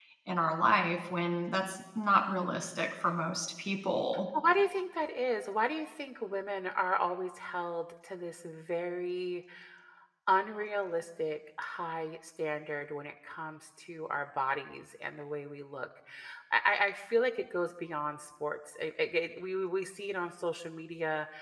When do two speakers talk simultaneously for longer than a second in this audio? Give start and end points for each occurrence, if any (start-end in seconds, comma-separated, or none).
none